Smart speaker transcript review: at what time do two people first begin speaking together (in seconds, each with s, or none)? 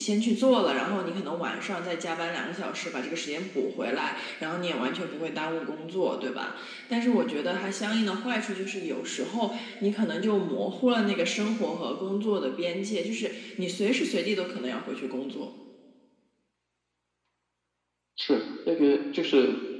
none